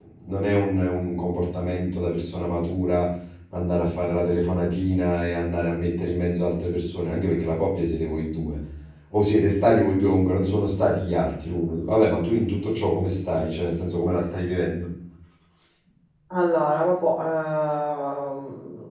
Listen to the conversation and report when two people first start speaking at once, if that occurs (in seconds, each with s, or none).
none